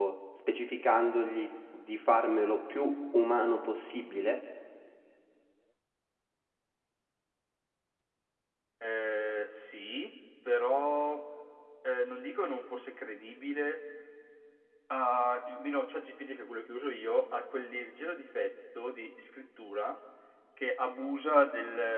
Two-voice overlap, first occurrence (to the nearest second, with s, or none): none